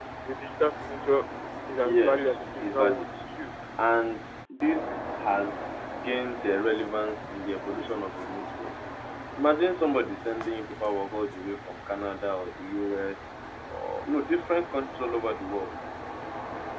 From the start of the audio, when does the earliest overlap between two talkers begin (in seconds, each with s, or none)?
1.8 s